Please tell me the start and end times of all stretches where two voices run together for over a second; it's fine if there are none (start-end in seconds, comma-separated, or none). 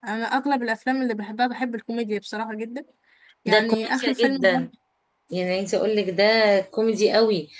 3.5-4.7